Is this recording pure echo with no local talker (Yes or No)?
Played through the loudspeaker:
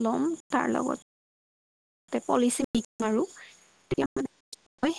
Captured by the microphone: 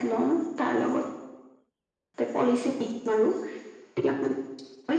Yes